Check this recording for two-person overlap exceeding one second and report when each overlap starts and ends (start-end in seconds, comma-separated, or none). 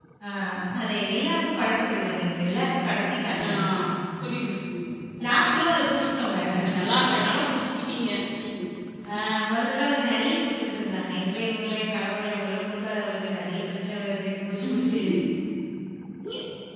none